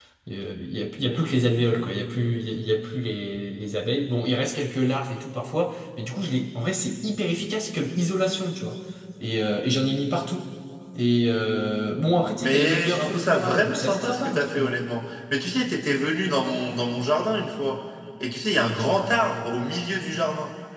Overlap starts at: 12.4 s

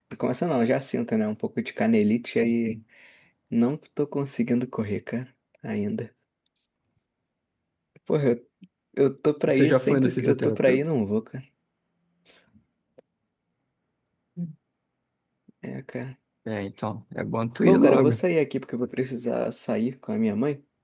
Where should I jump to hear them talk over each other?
9.4 s

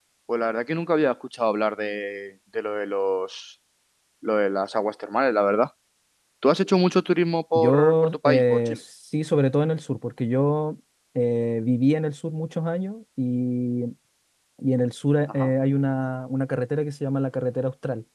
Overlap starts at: 7.6 s

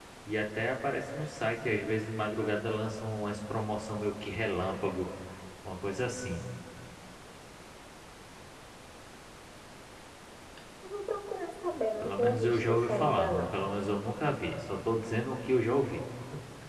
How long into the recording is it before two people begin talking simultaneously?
12.0 s

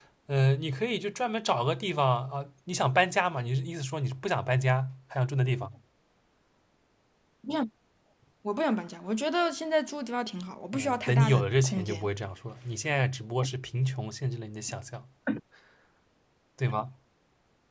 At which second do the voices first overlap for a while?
10.7 s

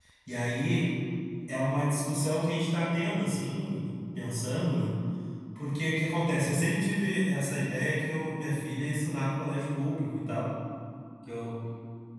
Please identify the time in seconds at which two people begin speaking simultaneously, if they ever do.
none

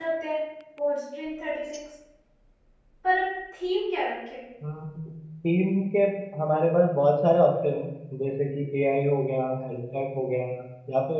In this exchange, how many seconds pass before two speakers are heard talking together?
none

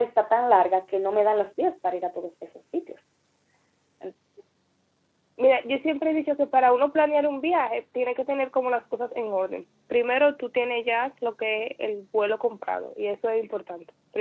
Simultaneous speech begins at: none

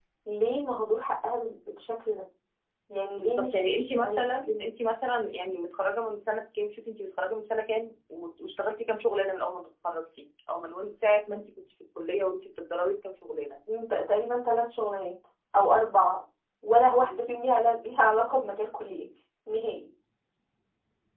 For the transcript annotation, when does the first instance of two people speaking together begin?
3.2 s

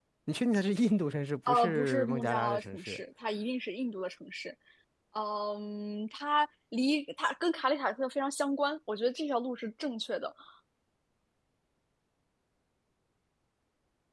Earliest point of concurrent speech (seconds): 1.5 s

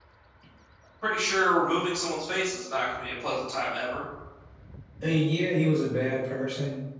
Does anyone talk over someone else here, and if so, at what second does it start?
none

